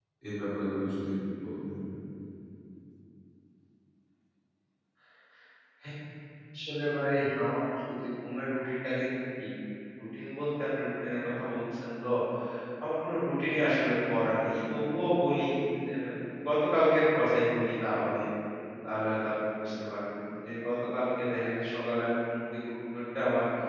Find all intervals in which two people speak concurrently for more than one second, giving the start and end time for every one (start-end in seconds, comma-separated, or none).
none